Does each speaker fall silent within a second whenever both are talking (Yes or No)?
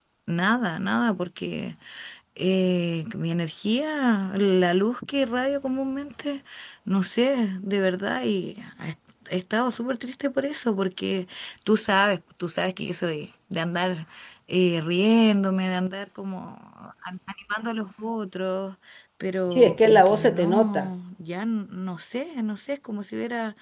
No